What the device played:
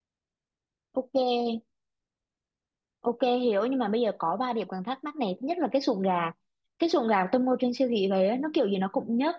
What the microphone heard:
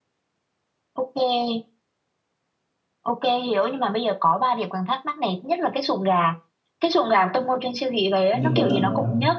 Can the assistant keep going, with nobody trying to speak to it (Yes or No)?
No